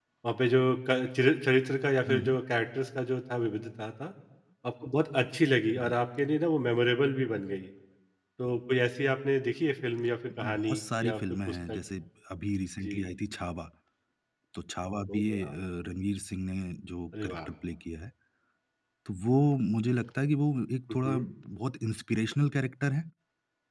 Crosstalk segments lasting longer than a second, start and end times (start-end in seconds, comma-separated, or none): 10.4-11.8